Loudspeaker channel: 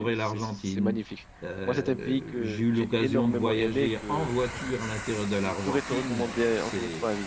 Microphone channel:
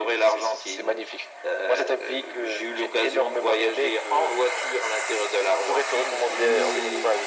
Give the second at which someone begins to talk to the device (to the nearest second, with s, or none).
6 s